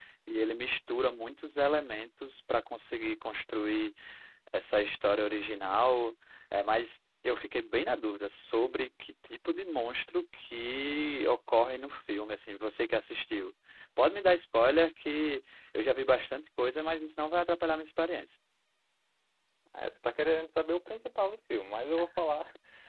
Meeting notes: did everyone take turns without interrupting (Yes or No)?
Yes